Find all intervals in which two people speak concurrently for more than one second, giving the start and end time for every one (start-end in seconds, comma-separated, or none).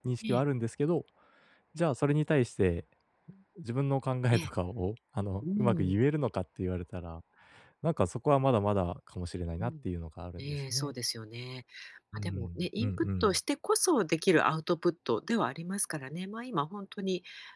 12.1-13.4